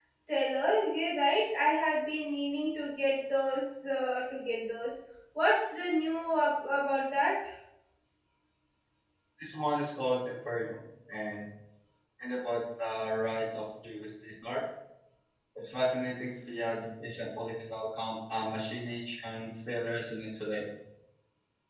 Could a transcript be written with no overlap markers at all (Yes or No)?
Yes